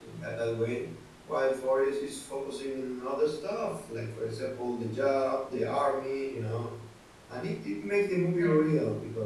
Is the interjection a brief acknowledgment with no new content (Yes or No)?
Yes